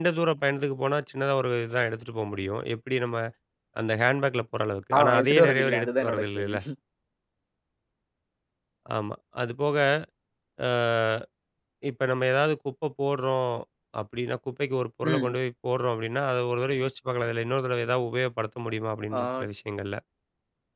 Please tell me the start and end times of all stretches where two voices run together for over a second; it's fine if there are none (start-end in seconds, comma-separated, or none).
5.0-6.6